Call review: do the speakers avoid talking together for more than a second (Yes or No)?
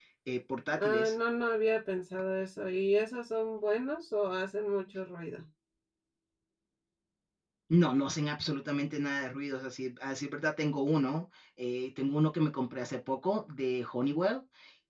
Yes